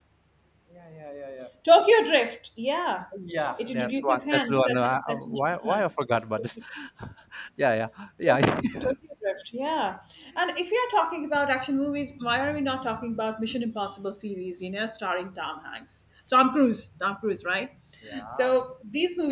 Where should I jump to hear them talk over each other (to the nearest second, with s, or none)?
4 s